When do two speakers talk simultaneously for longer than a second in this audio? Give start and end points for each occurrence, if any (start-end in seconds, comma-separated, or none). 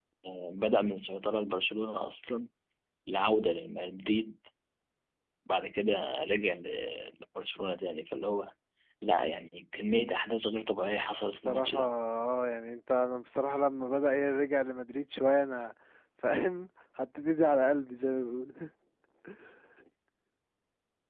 none